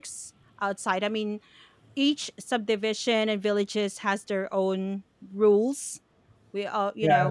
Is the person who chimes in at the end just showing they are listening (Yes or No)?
No